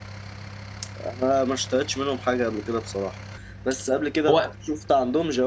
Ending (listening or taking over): listening